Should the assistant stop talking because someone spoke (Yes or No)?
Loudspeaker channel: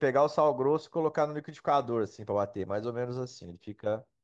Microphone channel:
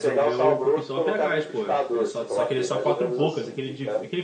Yes